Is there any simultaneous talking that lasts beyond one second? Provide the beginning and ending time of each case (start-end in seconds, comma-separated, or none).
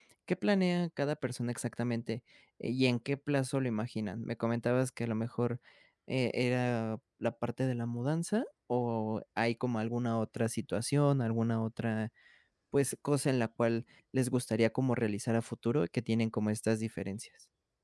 none